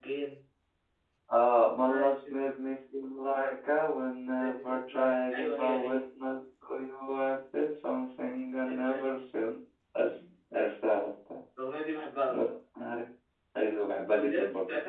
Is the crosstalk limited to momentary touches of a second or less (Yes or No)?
No